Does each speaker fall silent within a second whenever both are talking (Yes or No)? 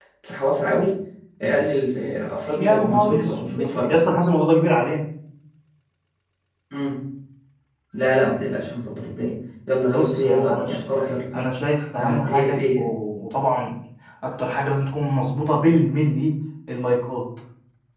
No